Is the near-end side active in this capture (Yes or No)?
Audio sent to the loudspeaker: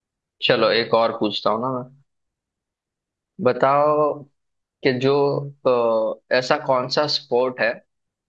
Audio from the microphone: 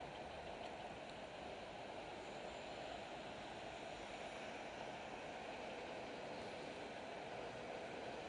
No